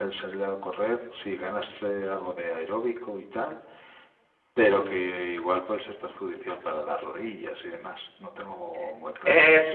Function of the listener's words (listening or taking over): taking over